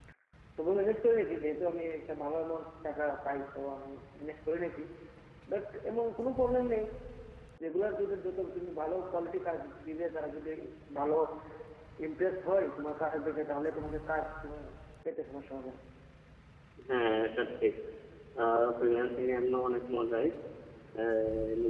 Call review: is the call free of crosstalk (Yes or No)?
Yes